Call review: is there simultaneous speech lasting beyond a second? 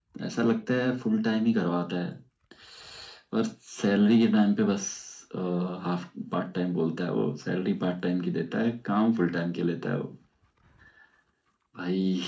No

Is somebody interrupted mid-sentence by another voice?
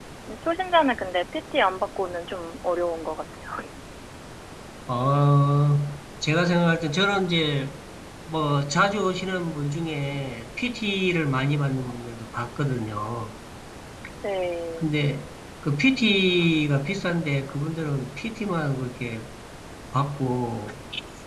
No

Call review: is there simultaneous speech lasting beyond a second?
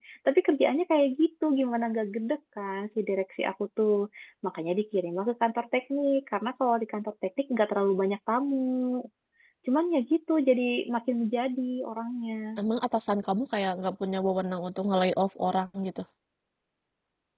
No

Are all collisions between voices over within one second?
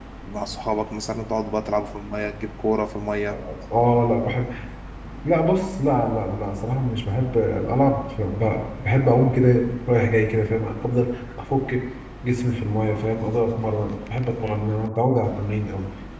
Yes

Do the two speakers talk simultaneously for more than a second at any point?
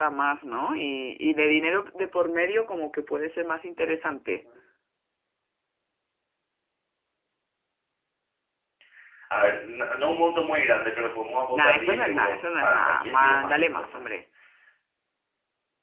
Yes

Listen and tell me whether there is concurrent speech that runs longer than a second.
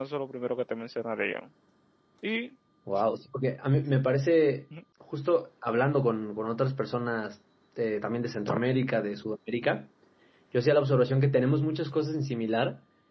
No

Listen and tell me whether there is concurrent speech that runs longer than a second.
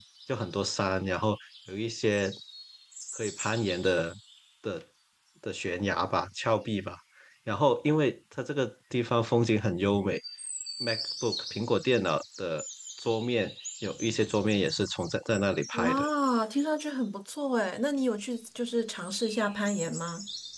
No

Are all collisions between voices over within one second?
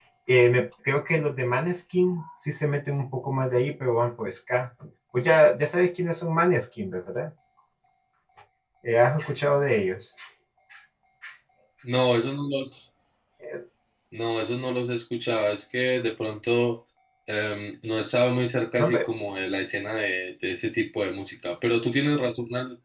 Yes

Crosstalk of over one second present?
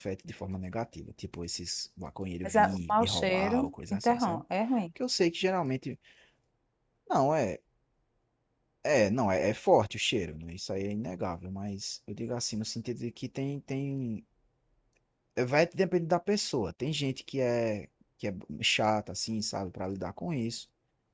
Yes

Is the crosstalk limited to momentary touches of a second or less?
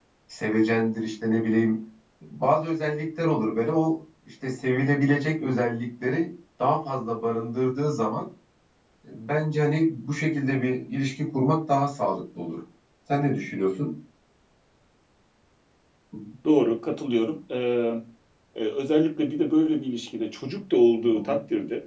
Yes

